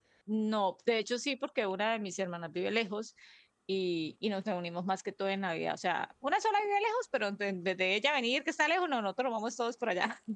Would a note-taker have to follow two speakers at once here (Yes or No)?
No